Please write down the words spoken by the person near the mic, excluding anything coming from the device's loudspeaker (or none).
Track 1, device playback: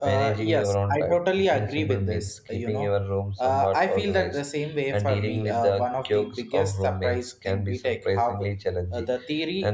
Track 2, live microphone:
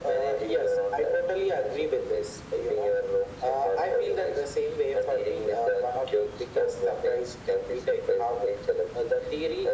none